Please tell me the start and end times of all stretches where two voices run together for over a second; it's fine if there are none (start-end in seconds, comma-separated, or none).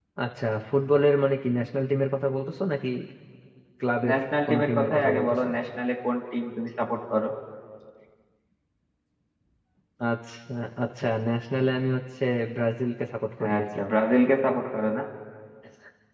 4.1-5.5